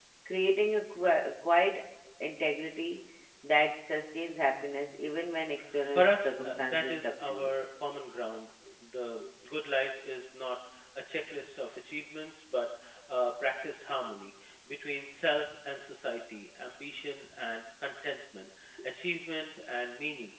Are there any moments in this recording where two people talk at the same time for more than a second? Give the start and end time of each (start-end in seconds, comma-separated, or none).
5.9-7.5